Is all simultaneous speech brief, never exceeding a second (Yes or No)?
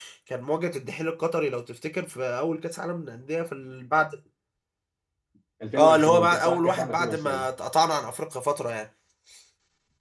No